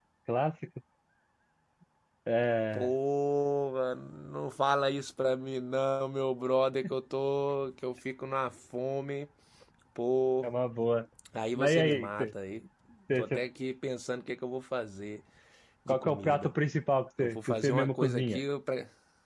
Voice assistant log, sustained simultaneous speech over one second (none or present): present